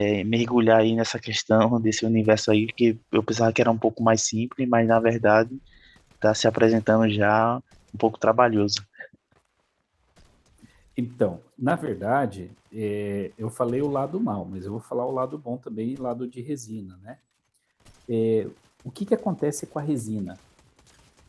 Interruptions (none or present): none